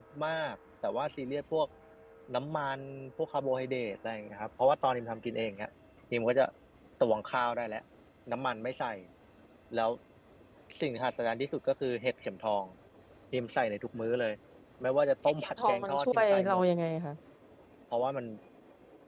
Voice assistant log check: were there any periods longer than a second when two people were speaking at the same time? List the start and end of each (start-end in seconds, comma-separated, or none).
15.4-16.6